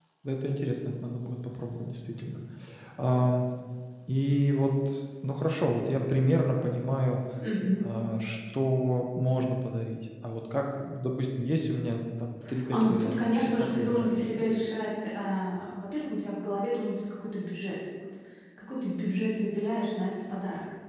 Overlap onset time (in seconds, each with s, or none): 12.7 s